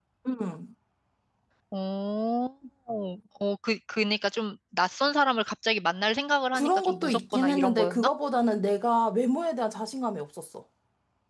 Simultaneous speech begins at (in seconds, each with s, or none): 6.5 s